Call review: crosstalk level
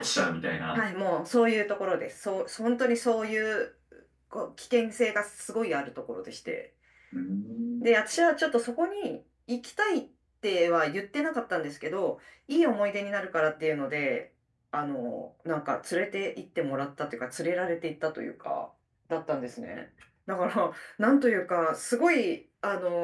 none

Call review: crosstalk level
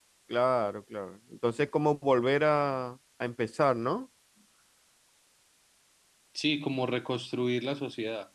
none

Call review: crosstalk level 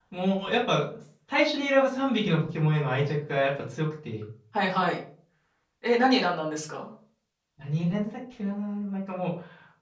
none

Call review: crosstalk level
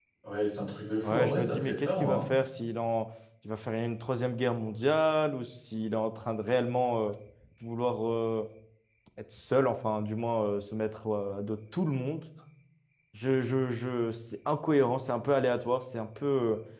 present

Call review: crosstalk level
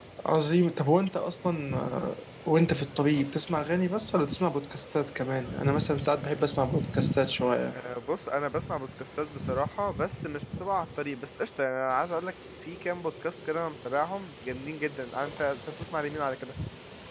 none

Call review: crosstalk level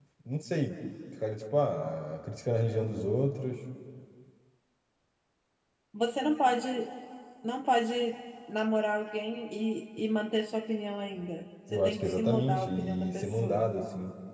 present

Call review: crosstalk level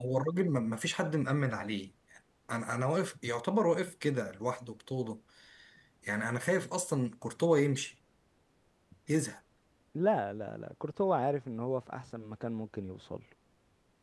none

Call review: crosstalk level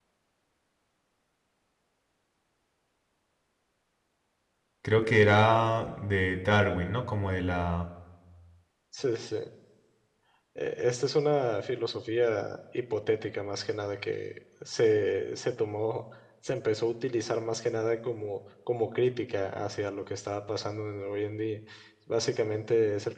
none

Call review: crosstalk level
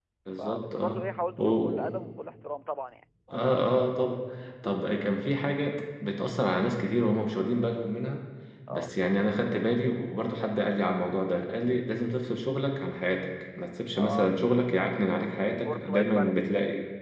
present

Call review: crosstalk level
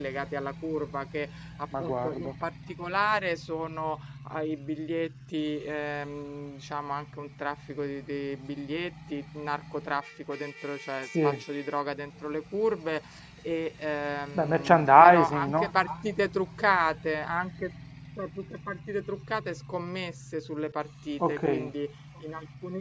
present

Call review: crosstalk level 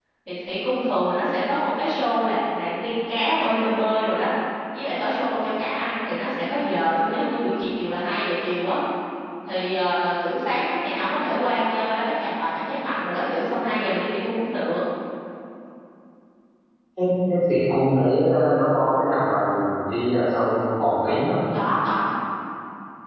none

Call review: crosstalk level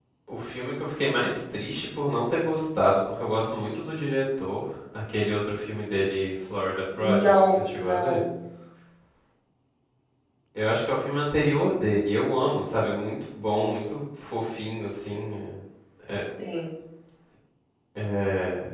present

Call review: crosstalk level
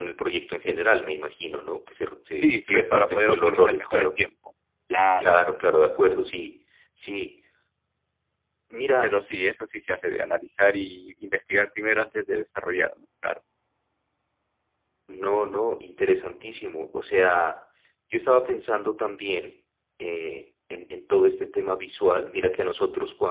present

